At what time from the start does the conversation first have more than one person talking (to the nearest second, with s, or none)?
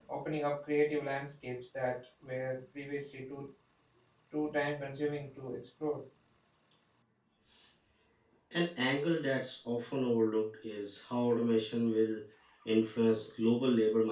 none